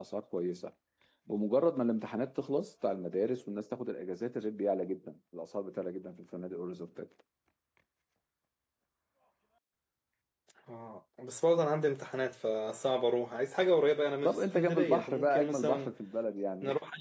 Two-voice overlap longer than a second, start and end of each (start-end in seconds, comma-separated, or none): 14.2-15.9